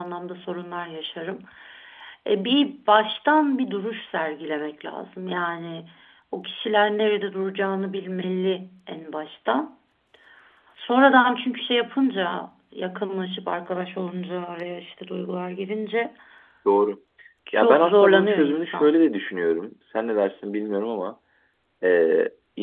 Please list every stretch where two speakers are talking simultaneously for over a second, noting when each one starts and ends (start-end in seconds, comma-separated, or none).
17.5-18.9